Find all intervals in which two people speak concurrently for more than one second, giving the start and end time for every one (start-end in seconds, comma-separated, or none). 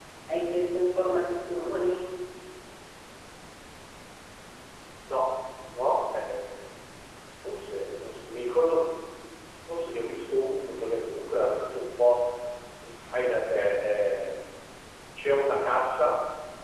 none